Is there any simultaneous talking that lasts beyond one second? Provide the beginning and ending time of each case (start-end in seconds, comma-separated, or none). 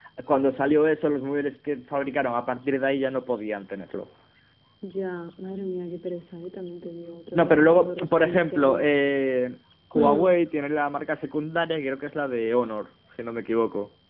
7.3-9.0